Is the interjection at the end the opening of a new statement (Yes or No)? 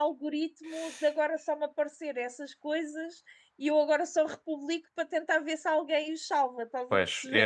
Yes